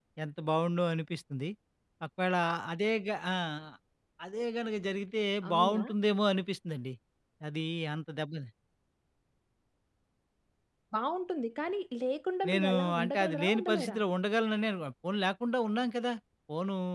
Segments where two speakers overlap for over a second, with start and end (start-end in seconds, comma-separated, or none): 12.5-14.0